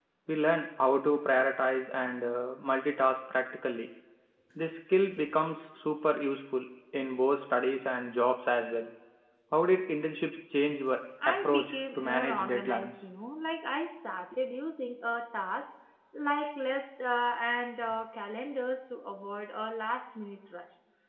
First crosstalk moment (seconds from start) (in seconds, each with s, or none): 11.2 s